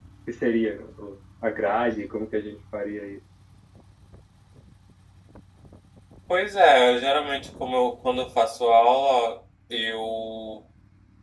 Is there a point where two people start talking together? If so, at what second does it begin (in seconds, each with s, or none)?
none